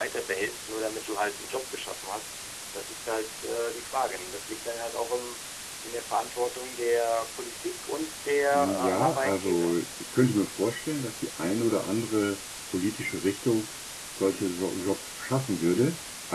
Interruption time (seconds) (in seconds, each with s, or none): 8.5 s